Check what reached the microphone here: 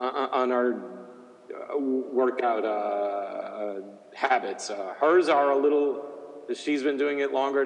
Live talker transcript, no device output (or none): none